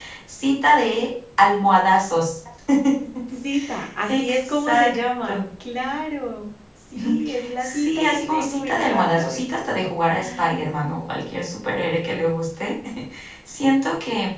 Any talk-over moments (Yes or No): Yes